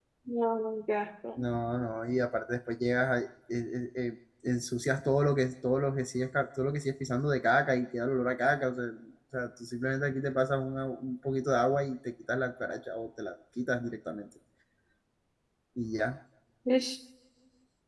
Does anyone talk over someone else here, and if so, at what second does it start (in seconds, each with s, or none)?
none